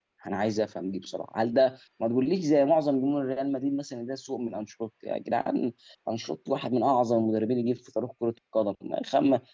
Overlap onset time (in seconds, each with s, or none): none